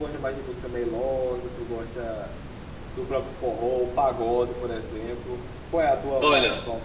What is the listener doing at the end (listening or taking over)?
taking over